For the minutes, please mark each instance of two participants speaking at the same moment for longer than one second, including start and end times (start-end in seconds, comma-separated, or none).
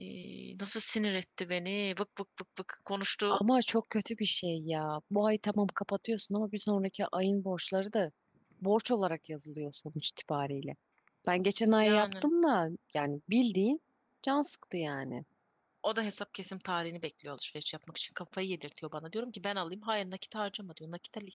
none